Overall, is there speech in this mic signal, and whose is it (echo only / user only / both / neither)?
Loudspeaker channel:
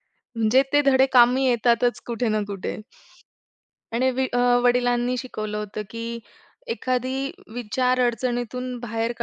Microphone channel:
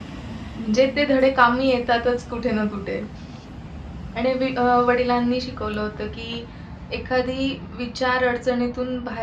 echo only